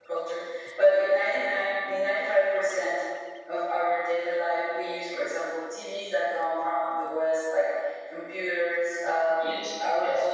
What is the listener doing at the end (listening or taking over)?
listening